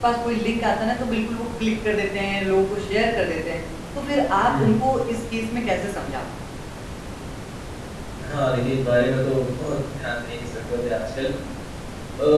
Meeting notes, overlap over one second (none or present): none